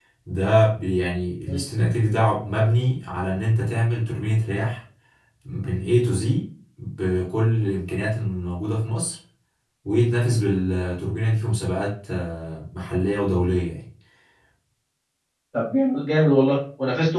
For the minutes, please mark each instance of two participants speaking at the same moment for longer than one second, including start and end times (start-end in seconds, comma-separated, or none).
none